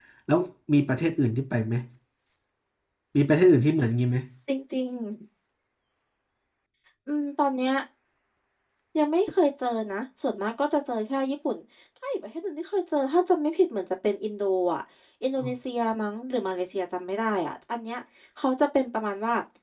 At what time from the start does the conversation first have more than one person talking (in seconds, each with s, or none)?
none